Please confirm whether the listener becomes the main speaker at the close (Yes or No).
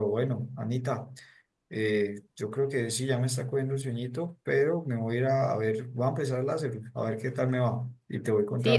Yes